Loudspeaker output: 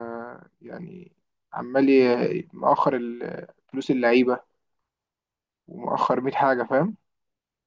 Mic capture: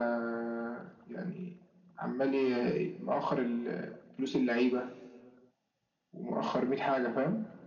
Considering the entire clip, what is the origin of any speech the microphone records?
echo only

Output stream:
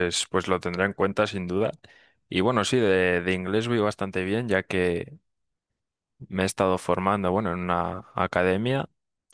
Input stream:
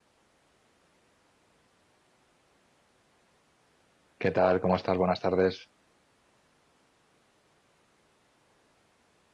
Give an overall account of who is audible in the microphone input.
user only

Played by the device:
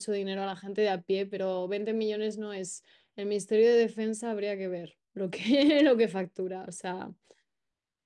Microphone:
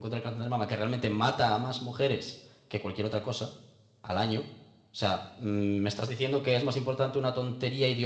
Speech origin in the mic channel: user only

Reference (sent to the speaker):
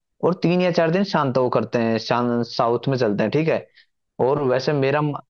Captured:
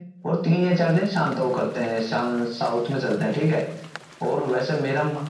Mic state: echo only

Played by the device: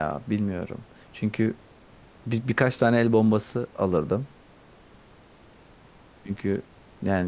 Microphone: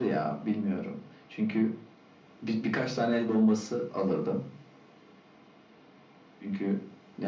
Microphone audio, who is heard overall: echo only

